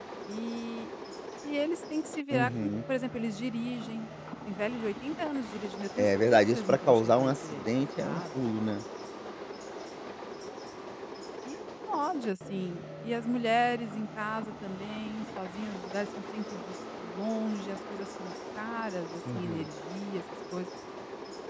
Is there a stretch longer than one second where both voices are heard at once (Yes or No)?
Yes